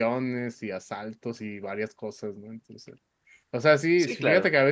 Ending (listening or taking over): listening